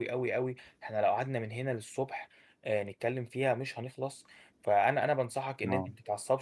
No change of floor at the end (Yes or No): Yes